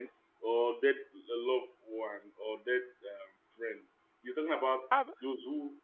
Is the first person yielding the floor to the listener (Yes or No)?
No